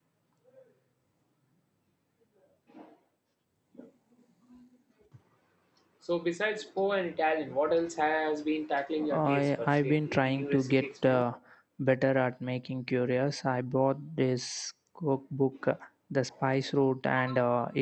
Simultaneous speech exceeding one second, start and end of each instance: 9.1-11.2

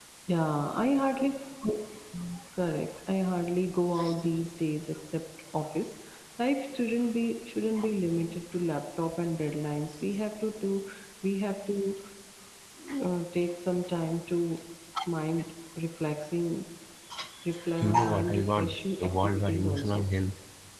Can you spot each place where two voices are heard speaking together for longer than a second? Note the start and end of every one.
17.8-20.0

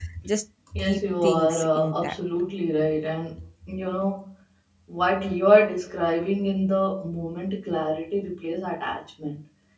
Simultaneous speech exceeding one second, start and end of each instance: 0.8-2.1

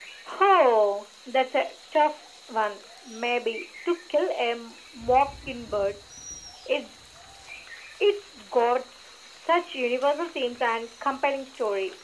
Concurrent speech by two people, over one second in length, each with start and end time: none

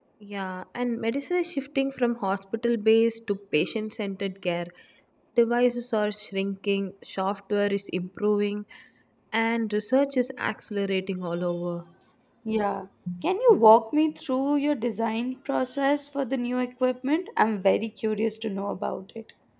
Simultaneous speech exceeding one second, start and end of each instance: none

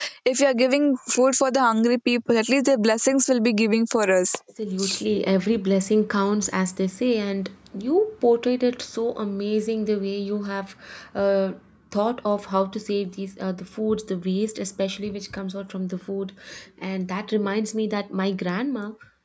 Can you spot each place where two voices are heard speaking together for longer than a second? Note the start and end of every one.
none

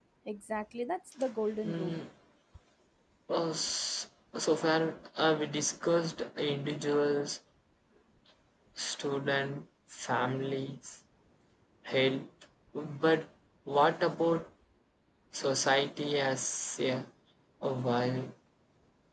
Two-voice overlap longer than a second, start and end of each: none

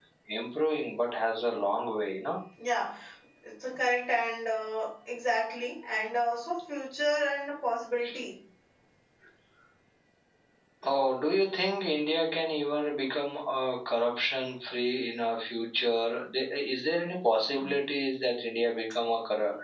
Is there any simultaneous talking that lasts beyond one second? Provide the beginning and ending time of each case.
none

